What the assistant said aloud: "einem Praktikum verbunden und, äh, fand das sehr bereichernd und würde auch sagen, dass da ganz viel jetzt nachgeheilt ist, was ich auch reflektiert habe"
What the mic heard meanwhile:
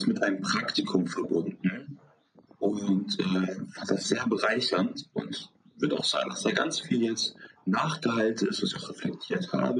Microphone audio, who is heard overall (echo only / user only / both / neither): echo only